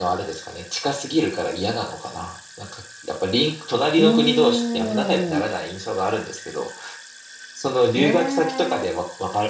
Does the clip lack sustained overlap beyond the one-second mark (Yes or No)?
No